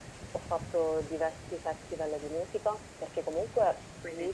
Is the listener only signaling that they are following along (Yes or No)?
Yes